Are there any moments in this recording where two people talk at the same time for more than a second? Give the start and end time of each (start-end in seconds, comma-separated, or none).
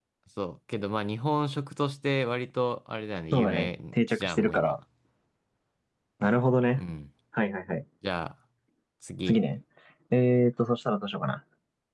3.3-4.8